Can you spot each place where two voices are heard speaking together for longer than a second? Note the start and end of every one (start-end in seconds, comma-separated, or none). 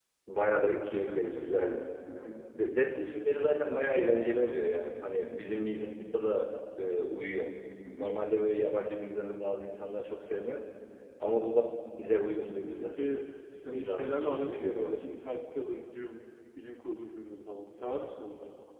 13.6-15.0